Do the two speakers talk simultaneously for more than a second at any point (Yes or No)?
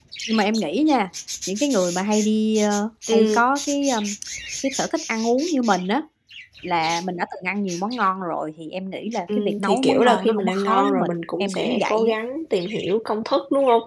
Yes